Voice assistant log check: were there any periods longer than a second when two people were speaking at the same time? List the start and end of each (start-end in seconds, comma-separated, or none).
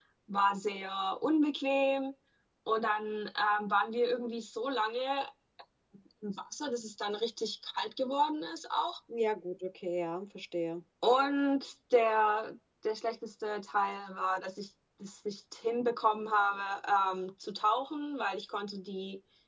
none